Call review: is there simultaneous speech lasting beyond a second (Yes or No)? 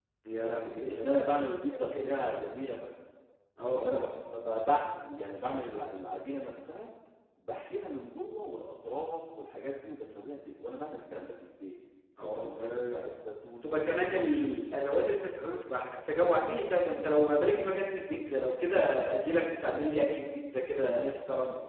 Yes